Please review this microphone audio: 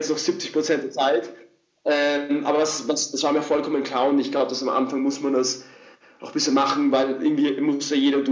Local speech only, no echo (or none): none